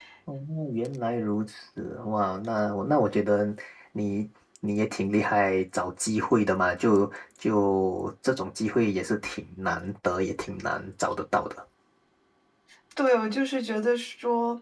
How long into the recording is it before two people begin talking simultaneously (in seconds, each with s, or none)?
none